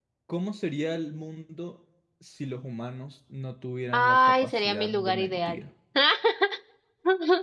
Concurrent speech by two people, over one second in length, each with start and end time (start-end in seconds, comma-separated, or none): 3.9-5.6